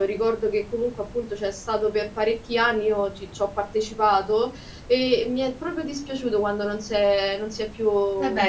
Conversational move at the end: taking over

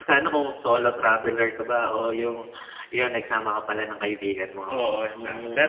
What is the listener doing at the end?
taking over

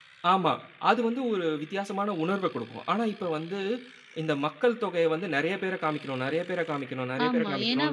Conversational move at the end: taking over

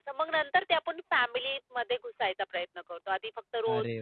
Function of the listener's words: listening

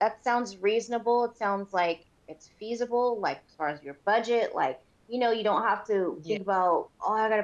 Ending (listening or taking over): listening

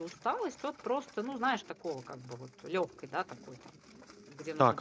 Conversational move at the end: taking over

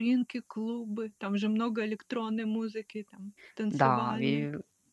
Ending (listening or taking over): taking over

